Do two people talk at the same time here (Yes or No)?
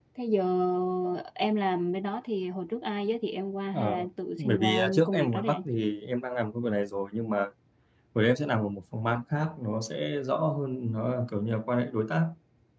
Yes